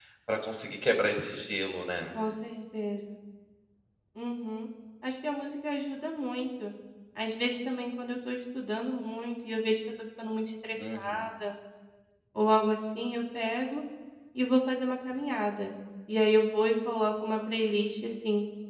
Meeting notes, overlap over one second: none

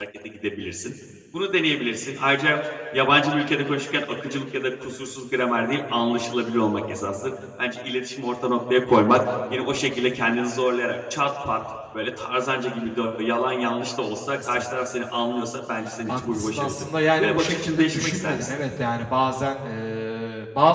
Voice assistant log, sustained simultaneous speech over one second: present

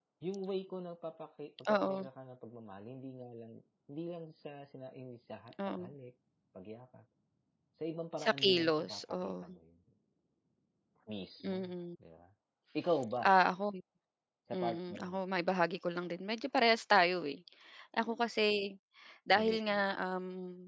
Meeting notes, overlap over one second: present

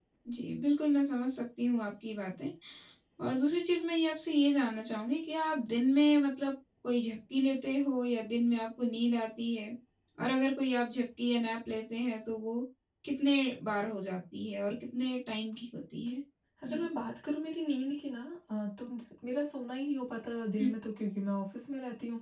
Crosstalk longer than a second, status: none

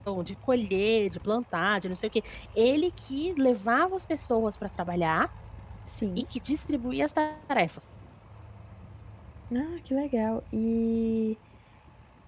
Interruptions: none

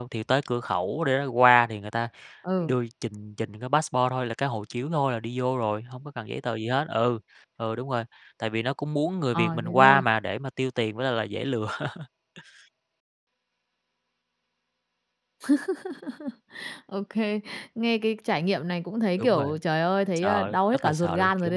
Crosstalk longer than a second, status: present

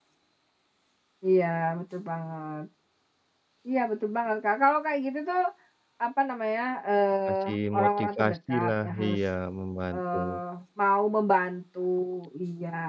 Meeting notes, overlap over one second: present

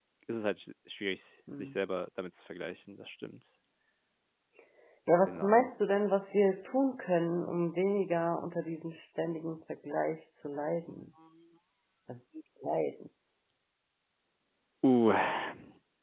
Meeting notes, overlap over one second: none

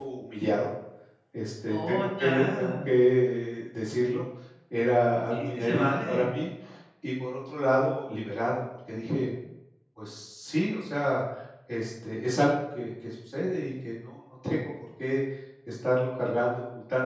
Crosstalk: present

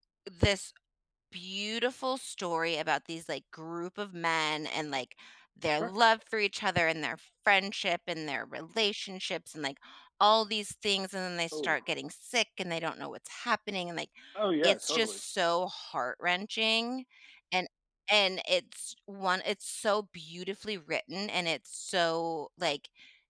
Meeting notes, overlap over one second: none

